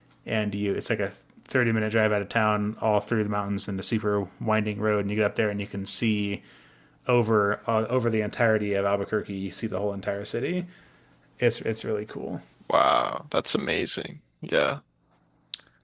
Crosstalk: none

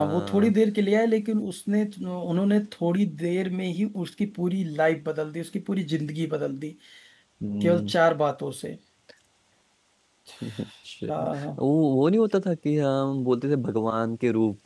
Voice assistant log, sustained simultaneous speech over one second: none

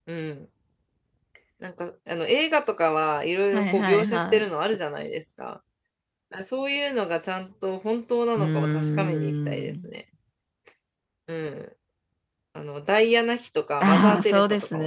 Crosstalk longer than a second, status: present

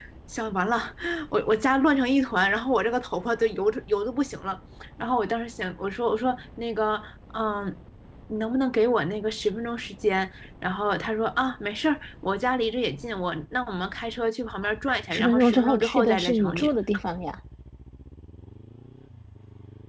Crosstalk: present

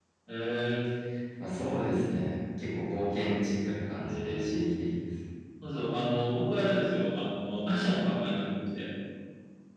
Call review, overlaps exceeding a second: none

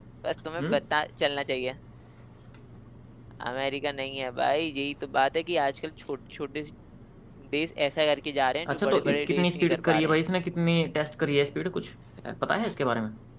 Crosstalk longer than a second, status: present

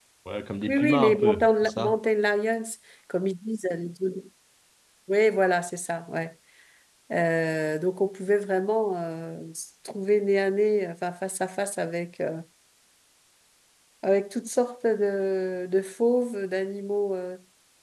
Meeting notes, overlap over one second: present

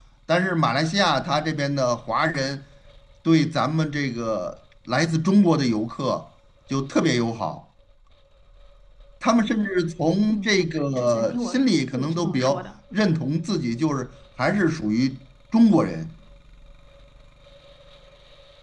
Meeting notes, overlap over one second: present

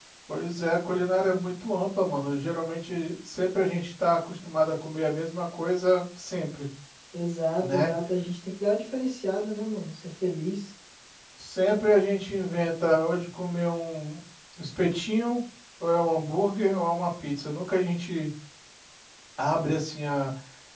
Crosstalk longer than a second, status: none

